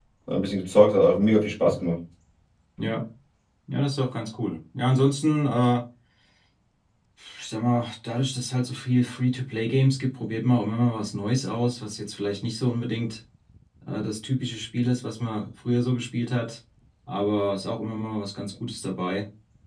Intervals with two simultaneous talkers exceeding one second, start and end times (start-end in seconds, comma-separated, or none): none